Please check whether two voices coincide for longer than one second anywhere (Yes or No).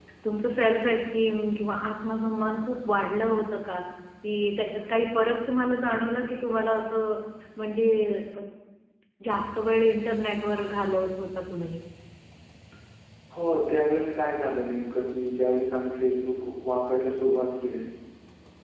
No